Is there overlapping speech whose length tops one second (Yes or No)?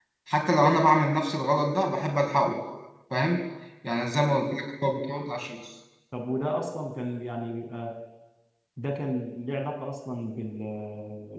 No